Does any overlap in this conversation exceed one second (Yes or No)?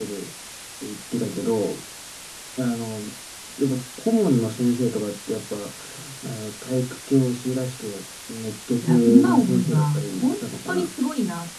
Yes